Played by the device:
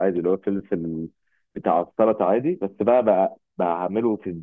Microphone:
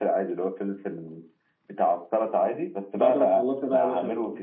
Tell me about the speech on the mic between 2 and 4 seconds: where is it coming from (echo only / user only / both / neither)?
both